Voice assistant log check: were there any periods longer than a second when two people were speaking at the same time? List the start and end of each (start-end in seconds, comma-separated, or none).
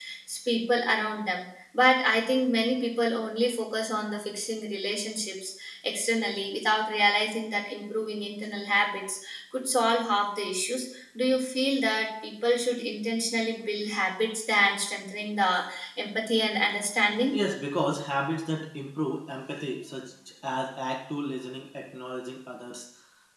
none